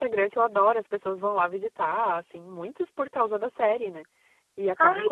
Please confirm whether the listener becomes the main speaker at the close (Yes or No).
No